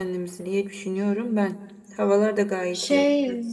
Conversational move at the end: taking over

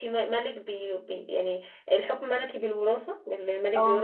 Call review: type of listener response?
listening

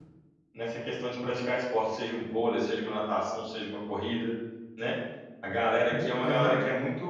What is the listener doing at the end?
listening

